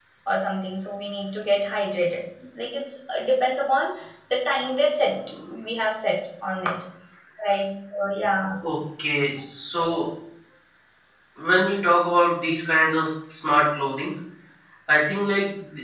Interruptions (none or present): none